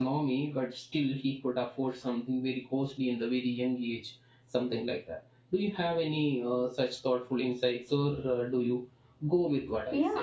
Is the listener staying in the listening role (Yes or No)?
No